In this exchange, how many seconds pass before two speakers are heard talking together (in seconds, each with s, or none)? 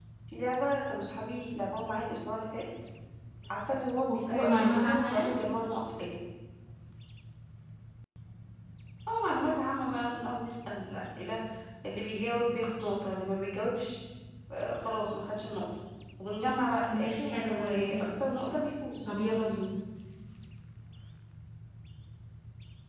4.1 s